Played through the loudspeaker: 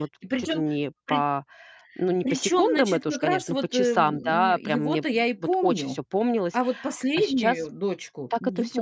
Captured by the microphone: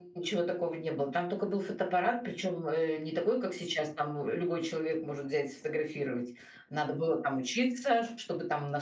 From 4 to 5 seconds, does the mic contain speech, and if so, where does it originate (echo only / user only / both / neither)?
user only